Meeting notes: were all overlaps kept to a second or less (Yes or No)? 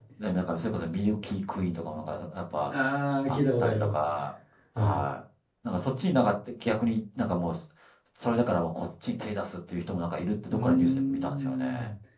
No